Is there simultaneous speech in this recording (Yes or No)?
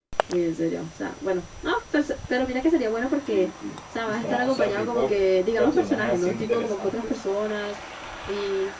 Yes